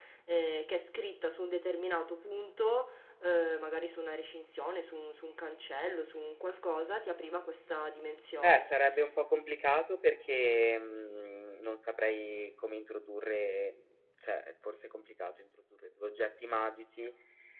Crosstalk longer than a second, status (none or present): none